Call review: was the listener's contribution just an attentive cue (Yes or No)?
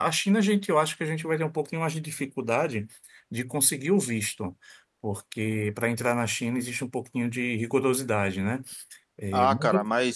No